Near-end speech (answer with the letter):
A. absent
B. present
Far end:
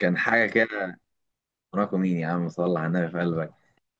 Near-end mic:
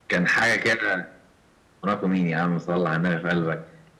A